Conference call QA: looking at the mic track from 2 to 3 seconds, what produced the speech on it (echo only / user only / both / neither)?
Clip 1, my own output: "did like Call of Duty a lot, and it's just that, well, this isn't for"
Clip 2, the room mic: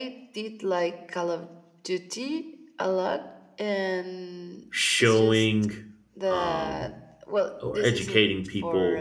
echo only